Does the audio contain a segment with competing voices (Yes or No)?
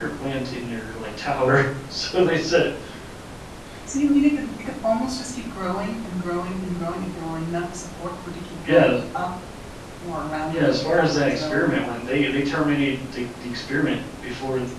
Yes